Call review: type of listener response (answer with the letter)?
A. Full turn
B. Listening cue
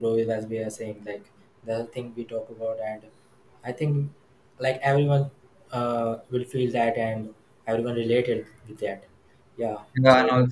A